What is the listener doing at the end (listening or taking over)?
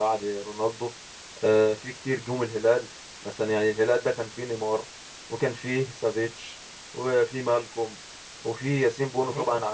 listening